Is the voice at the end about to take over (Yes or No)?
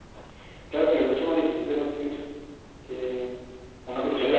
Yes